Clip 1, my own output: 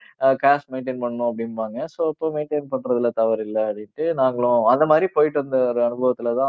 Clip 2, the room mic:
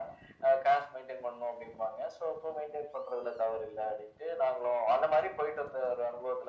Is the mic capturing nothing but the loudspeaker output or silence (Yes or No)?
Yes